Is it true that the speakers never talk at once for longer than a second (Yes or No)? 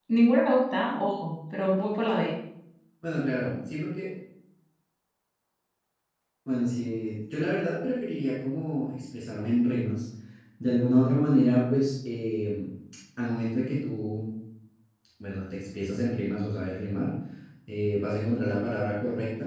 Yes